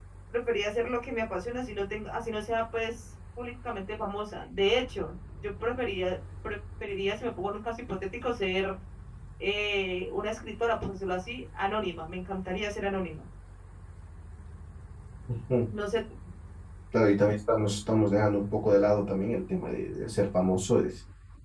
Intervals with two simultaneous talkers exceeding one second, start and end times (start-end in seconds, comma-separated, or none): none